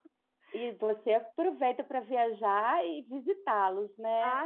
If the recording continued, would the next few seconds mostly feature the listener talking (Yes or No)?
Yes